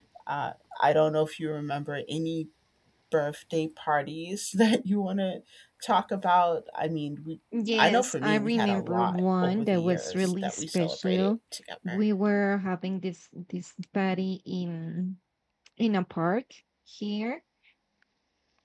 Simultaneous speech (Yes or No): Yes